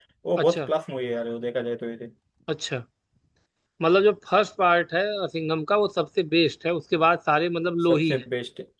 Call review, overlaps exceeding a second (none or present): none